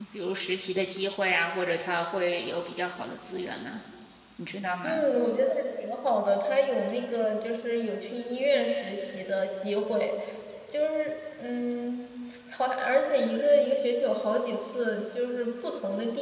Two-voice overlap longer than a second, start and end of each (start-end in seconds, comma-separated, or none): none